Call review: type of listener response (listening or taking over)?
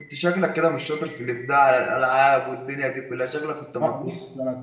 taking over